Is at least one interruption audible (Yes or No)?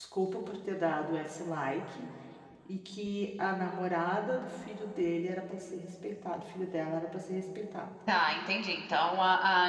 No